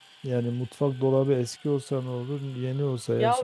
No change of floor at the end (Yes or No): No